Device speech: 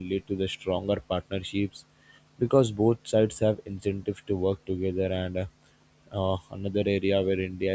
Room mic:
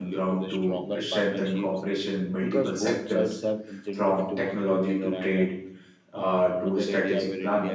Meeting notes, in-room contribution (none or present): present